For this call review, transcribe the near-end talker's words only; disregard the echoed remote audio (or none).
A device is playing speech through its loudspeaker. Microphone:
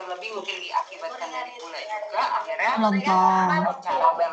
Oh, Lontong.